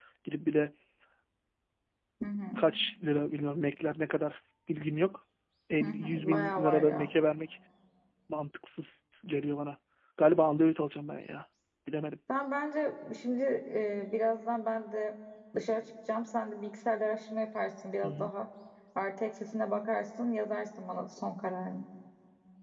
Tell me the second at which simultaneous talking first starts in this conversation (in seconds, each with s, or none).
5.8 s